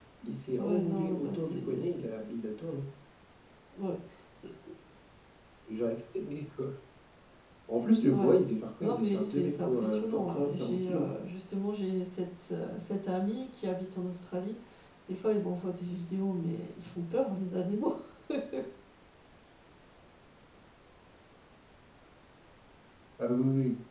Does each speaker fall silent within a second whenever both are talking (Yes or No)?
No